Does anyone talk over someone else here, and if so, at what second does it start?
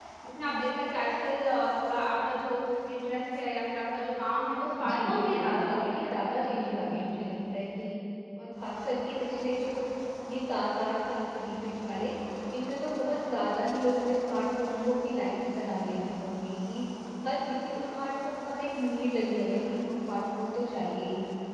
4.9 s

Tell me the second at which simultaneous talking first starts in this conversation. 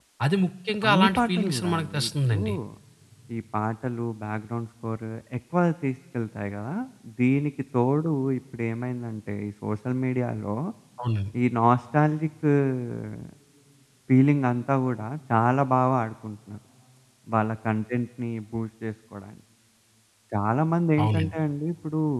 0.9 s

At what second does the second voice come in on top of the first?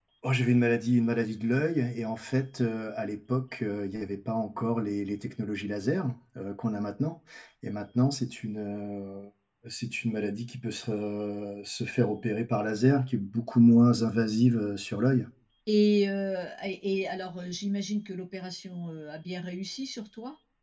none

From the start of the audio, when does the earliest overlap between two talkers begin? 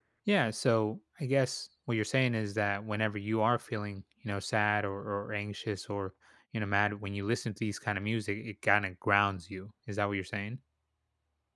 none

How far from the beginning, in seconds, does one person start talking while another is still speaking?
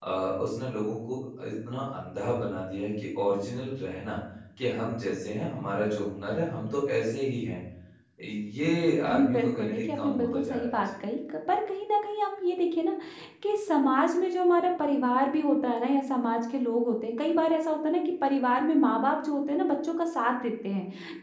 9.1 s

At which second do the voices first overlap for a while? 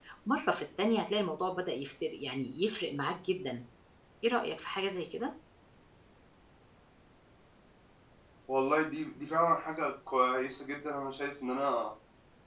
none

